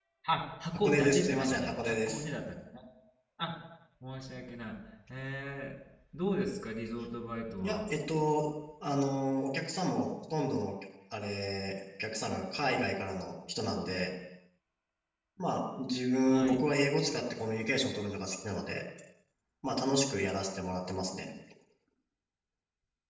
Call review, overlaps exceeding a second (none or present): present